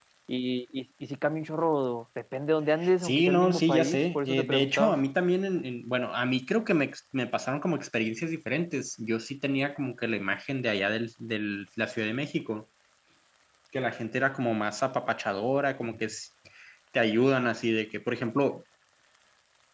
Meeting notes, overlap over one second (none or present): present